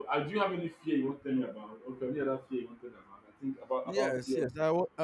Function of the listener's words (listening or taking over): taking over